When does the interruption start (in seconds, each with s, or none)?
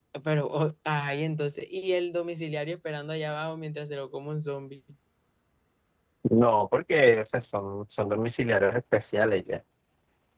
none